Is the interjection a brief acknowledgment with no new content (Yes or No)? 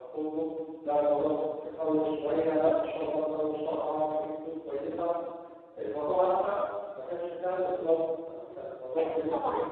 No